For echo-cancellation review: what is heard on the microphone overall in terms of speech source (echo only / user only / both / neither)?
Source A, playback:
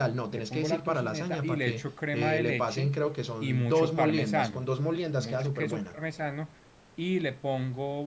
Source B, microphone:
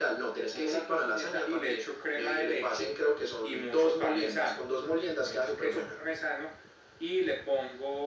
echo only